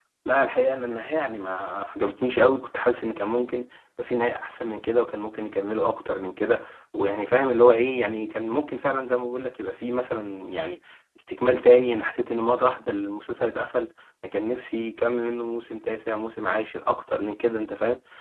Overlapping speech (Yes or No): No